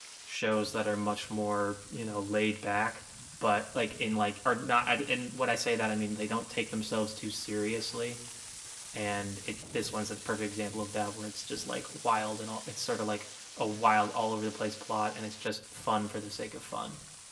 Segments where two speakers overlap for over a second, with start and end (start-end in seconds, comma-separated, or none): none